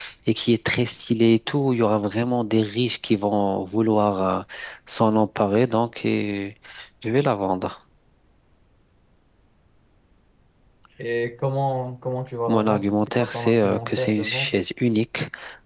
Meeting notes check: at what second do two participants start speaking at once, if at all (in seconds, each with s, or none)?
12.5 s